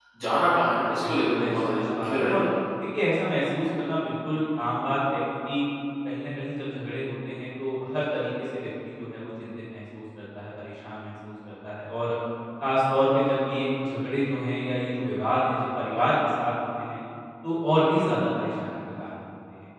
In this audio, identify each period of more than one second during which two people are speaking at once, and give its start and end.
1.1-2.5

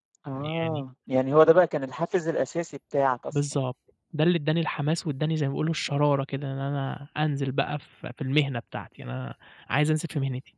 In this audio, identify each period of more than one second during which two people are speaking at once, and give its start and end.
none

